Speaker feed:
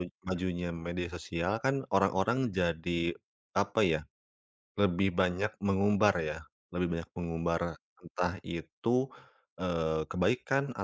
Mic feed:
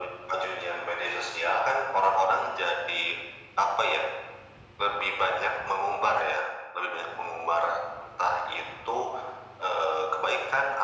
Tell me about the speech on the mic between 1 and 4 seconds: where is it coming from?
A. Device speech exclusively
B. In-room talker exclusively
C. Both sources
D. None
A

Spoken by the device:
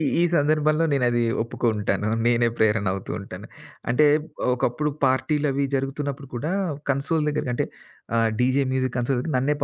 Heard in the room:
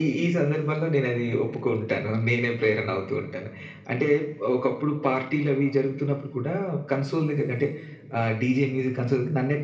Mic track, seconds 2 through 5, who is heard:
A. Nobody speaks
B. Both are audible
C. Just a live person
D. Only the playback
D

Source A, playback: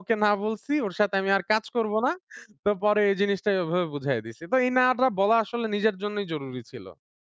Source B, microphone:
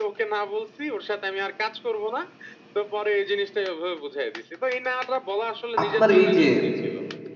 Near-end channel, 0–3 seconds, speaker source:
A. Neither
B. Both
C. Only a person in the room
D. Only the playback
D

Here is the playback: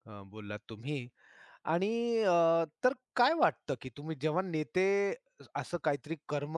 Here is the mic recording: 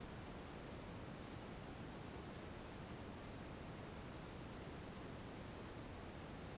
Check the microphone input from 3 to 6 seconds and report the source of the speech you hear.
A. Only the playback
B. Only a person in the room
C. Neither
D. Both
C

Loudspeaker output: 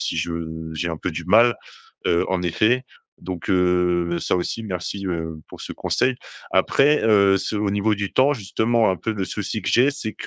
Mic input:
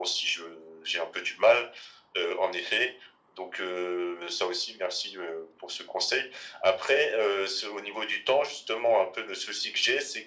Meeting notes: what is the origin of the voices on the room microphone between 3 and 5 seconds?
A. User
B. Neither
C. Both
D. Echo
D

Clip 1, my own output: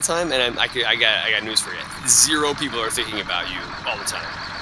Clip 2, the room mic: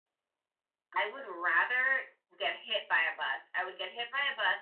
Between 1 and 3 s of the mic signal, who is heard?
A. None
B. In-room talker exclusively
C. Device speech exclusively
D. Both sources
B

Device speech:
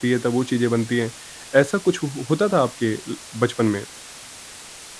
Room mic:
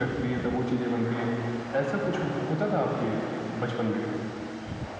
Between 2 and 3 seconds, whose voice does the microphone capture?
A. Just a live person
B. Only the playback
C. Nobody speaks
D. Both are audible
B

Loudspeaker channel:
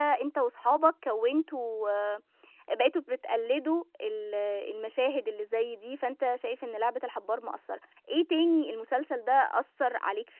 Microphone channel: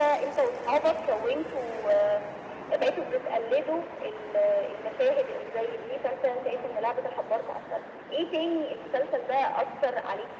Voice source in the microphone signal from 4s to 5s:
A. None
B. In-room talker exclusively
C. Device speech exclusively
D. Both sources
C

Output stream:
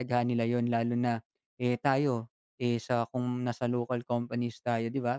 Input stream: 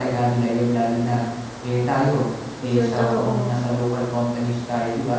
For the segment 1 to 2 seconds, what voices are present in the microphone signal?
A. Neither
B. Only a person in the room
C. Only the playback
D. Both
C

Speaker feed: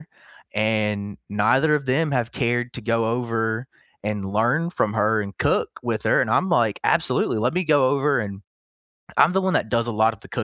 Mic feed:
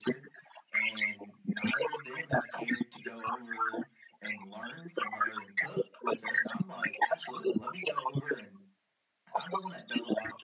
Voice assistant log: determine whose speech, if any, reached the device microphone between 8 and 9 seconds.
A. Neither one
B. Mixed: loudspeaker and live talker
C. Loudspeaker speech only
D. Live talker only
C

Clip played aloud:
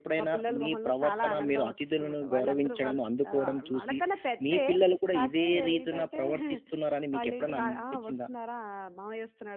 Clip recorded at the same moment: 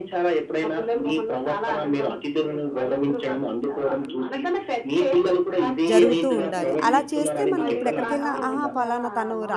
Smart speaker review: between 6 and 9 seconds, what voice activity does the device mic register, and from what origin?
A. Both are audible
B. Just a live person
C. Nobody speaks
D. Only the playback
A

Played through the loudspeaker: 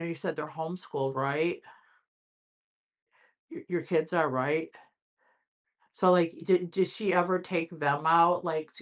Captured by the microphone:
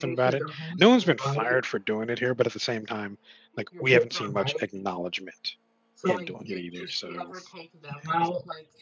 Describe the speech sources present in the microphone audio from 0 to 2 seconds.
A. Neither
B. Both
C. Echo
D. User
B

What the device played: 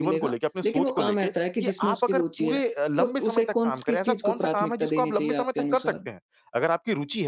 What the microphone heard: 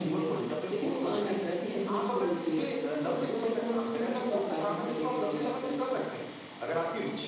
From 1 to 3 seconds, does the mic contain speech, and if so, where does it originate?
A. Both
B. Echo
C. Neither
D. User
B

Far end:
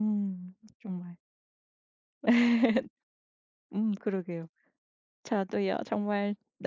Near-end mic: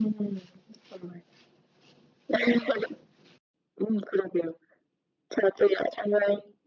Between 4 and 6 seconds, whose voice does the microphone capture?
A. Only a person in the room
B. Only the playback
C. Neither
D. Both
B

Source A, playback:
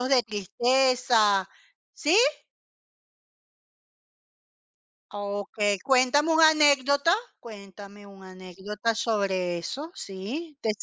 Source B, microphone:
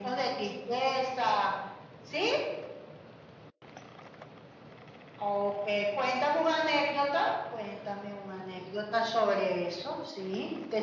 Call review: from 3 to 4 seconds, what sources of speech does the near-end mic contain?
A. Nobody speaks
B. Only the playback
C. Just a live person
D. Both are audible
A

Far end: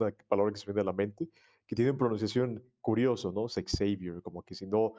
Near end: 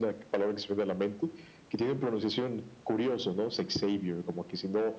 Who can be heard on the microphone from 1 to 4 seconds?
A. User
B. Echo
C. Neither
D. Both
B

